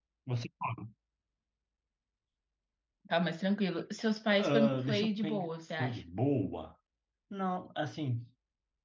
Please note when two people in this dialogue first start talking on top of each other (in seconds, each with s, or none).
4.3 s